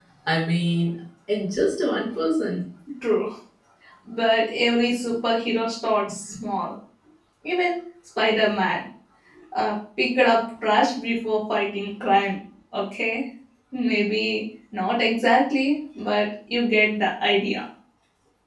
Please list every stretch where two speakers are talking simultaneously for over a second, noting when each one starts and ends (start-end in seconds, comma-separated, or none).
none